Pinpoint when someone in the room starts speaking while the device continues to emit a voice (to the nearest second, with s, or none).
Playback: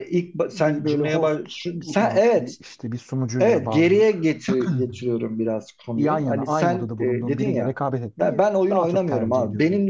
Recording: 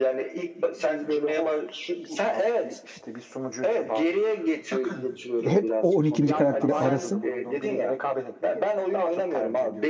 5 s